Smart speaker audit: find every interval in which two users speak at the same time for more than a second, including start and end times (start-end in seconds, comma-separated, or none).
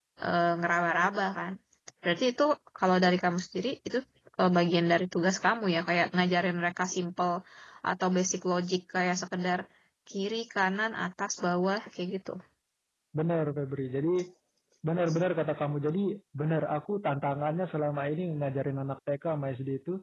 none